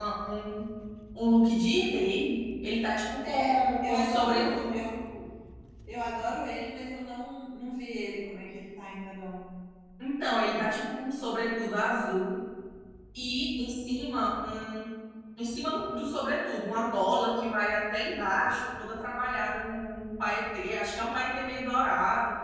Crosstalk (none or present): present